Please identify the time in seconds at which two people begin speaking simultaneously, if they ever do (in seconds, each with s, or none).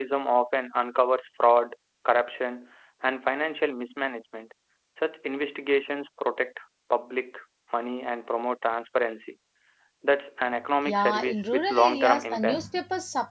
10.9 s